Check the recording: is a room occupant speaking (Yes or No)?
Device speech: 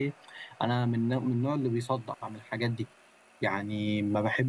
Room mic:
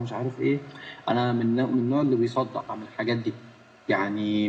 No